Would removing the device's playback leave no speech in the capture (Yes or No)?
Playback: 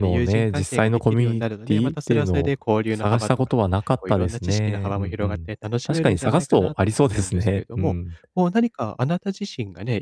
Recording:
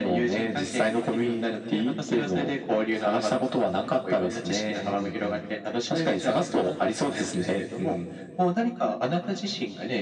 Yes